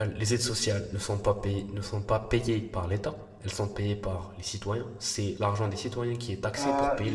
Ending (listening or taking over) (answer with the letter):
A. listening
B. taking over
B